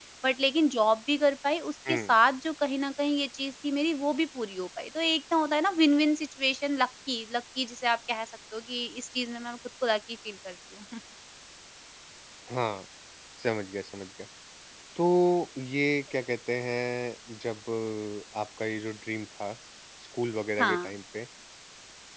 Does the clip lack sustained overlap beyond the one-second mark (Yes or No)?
Yes